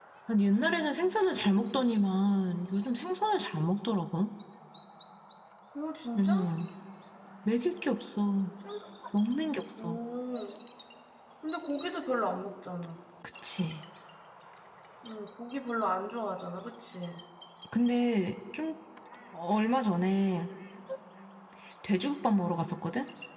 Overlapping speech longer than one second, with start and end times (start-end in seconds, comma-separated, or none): none